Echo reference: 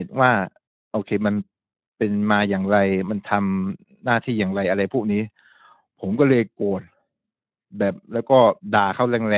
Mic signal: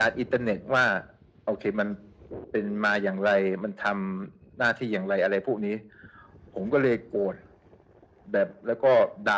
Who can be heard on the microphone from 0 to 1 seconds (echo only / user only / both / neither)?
echo only